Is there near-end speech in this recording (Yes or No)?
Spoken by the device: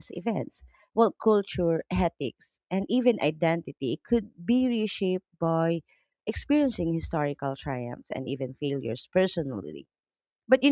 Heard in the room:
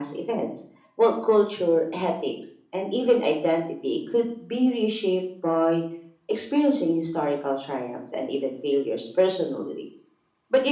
No